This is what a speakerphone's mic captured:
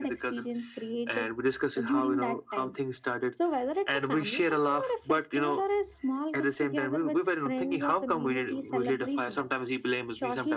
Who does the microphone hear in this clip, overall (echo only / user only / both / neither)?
echo only